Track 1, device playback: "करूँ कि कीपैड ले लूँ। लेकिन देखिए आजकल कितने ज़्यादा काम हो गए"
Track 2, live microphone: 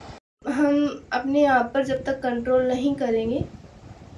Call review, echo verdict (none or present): none